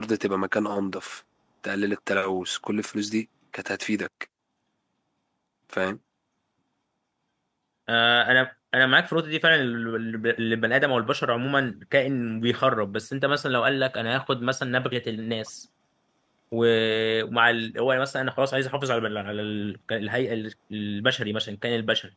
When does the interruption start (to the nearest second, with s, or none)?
none